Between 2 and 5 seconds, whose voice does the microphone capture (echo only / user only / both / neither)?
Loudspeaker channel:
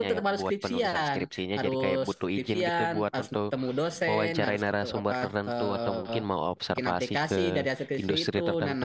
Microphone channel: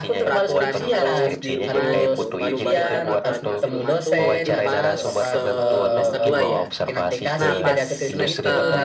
both